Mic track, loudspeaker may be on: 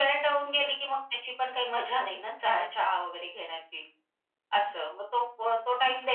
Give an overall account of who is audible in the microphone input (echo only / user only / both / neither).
echo only